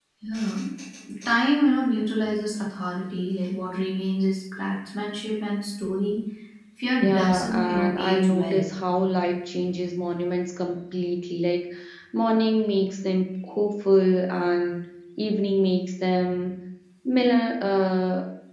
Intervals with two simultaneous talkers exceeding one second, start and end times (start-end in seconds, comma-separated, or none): 7.0-8.6